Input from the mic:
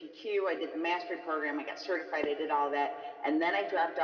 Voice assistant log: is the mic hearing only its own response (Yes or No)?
Yes